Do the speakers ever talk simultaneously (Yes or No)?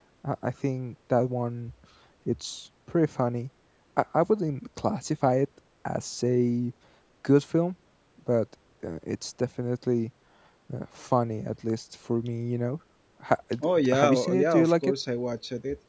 Yes